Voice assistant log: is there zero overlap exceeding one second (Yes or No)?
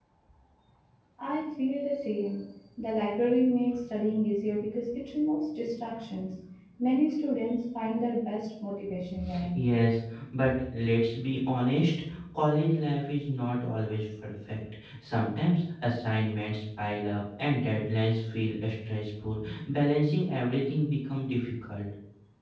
Yes